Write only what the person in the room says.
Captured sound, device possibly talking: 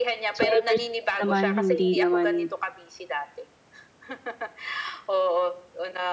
So, ever since naman, hindi naman,

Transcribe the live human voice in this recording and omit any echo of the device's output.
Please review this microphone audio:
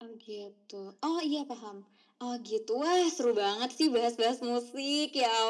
none

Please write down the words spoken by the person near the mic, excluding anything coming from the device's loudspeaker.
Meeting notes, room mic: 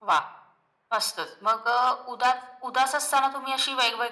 none

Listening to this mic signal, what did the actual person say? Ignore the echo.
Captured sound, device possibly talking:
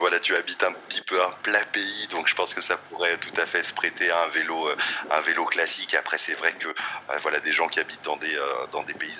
none

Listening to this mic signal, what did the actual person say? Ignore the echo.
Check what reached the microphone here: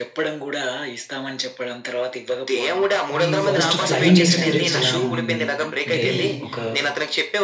మీ ఫస్ట్ ఫ్లయింగ్ ఎక్స్పీరియన్స్ ఎలా ఉండింది? అంటే ఒక

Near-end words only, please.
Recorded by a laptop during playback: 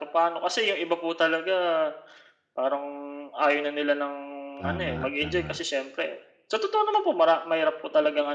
Tama, tama.

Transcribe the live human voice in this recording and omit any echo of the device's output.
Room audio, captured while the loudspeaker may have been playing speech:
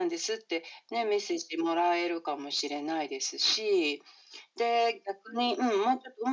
none

